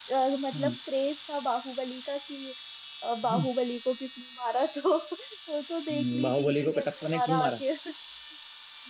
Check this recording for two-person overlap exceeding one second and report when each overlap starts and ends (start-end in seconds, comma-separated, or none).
5.9-7.6